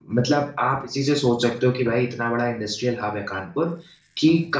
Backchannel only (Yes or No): Yes